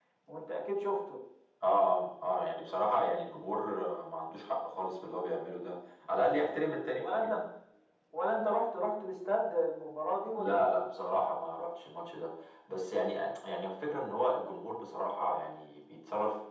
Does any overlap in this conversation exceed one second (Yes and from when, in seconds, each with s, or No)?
No